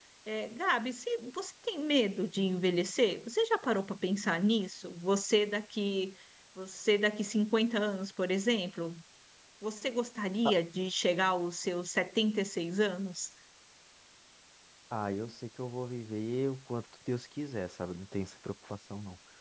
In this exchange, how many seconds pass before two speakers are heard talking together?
none

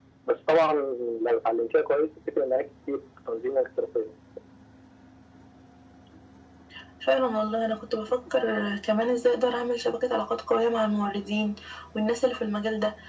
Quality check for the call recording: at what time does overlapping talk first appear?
none

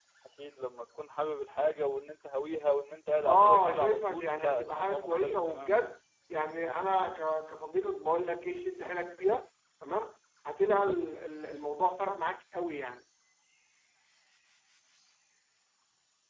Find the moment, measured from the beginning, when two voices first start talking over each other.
3.2 s

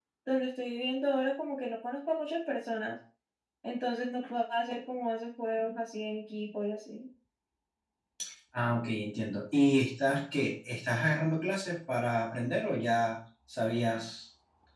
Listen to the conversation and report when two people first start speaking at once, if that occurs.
none

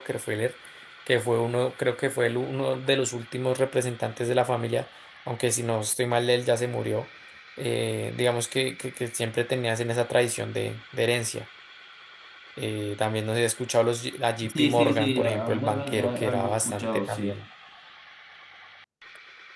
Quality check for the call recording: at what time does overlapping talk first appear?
14.4 s

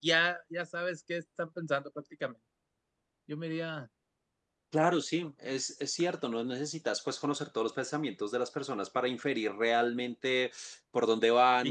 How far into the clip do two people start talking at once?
none

